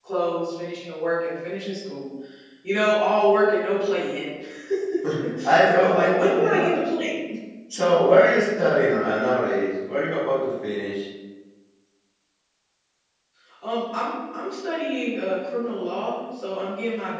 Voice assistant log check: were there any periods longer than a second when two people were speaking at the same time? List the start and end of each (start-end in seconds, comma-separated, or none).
5.7-6.9